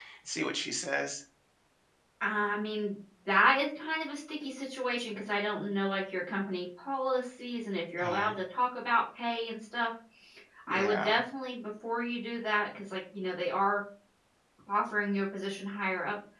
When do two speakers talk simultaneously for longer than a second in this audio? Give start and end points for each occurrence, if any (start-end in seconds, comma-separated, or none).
none